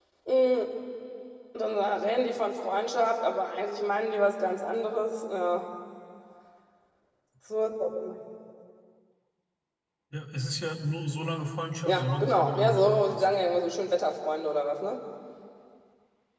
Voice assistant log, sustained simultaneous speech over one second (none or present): present